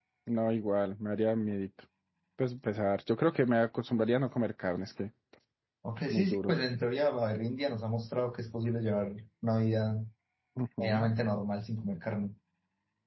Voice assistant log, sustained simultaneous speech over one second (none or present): none